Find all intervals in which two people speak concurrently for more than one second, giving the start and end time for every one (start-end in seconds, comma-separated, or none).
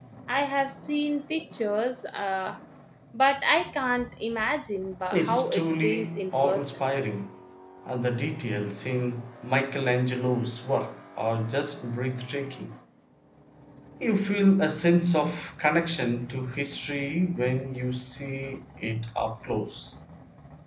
5.1-6.8